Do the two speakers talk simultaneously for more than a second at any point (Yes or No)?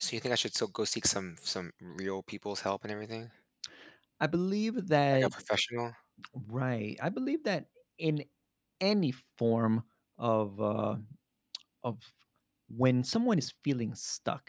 No